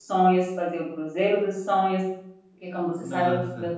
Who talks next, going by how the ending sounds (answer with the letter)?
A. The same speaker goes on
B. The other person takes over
A